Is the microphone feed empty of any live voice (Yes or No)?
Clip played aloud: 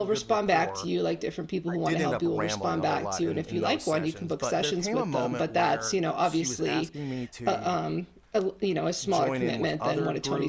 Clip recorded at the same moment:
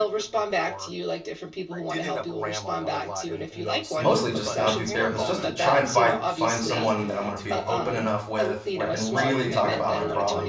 No